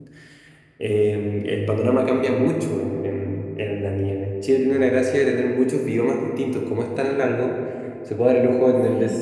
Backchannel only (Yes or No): Yes